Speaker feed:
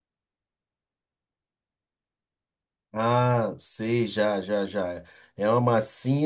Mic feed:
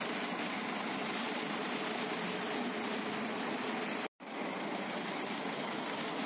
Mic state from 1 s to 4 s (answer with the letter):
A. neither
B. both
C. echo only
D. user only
A